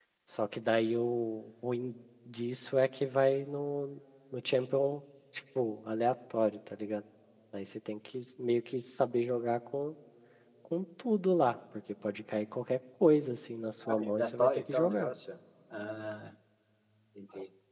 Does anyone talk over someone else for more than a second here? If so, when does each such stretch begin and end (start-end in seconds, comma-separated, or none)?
13.9-15.1